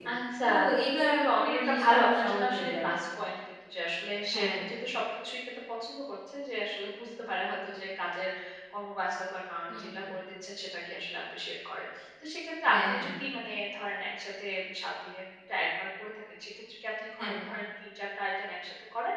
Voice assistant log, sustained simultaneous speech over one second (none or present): present